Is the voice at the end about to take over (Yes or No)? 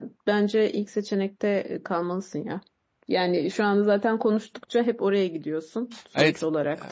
Yes